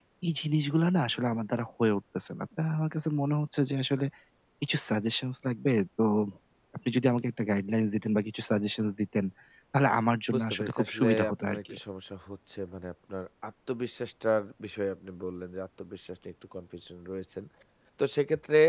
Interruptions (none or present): present